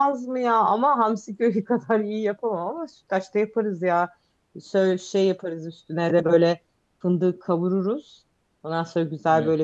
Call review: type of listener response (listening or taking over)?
listening